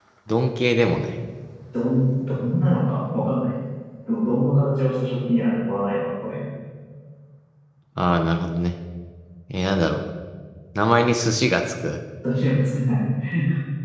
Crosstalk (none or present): none